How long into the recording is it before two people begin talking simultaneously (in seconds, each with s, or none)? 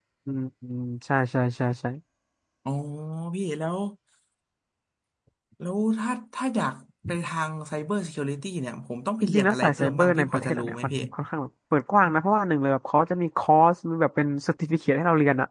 9.2 s